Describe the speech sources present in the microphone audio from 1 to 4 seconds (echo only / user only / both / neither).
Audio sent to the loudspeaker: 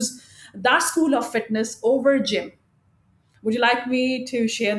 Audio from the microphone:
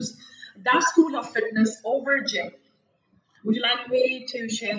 echo only